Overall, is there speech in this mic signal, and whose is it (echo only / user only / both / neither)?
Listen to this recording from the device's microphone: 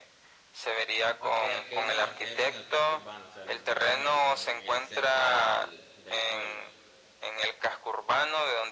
both